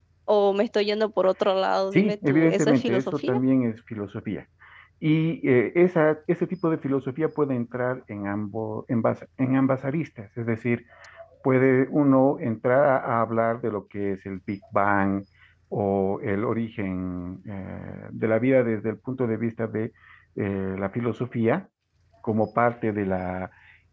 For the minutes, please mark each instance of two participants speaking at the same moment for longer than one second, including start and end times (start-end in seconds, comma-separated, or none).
1.9-3.4